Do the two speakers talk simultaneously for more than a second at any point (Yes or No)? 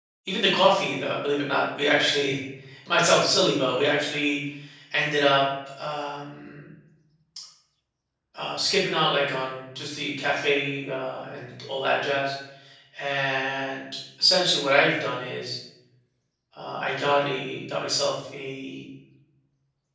No